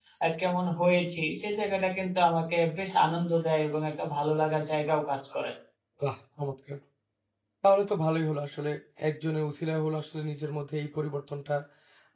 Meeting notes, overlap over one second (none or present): none